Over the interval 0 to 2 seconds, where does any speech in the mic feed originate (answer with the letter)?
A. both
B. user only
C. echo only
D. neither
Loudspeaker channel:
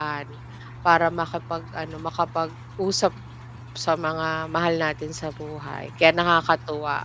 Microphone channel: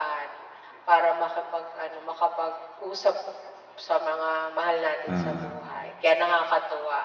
C